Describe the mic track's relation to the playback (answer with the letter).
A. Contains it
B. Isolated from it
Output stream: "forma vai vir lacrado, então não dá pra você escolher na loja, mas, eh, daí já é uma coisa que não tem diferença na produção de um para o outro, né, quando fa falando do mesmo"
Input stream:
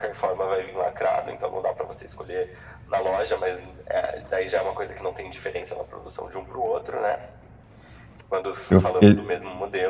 A